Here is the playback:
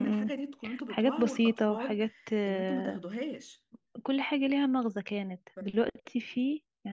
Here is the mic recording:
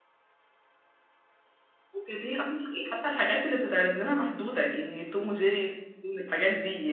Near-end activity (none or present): present